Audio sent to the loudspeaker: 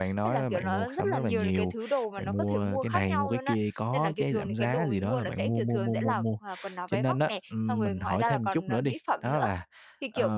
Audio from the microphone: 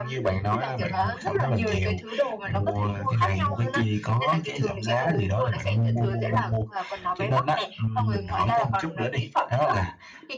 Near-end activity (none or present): none